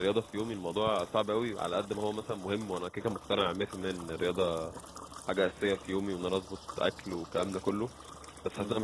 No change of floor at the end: Yes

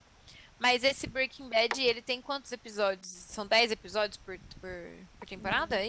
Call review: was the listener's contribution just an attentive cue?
No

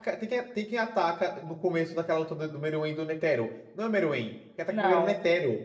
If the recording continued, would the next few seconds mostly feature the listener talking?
No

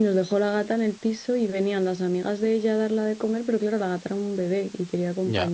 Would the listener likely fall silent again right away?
Yes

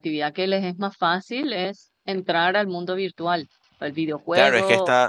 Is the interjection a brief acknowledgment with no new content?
No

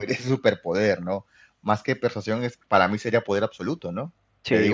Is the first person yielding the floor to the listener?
No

